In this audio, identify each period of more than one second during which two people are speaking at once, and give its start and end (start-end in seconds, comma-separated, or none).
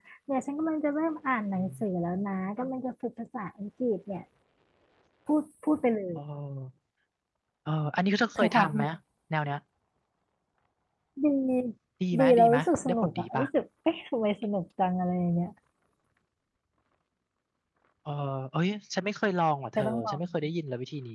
12.2-13.4